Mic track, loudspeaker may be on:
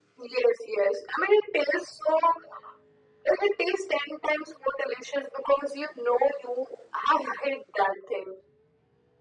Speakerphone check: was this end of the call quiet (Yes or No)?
Yes